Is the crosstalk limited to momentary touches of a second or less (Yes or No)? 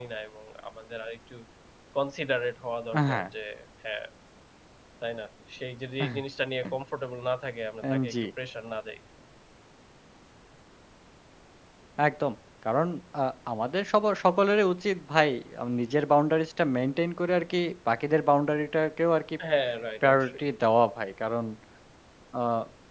Yes